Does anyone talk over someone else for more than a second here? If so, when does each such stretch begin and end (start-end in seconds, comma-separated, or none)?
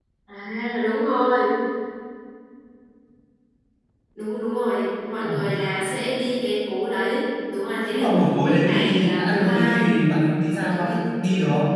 7.9-10.0